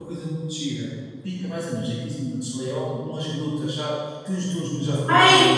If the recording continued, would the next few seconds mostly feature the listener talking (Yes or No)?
Yes